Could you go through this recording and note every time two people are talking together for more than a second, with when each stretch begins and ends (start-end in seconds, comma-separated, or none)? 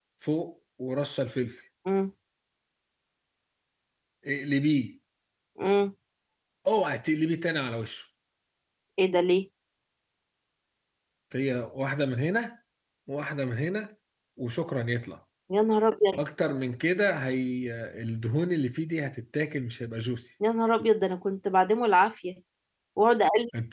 none